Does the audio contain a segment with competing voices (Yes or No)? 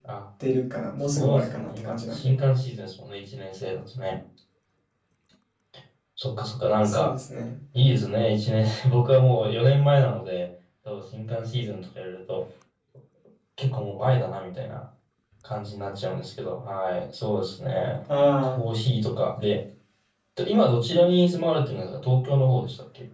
Yes